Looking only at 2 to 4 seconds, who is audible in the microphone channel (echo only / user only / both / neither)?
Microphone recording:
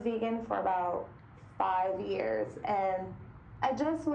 echo only